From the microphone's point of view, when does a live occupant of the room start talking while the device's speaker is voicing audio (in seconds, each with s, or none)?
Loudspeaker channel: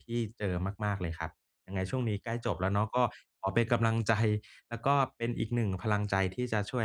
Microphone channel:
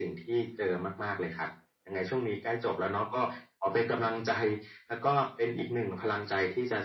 none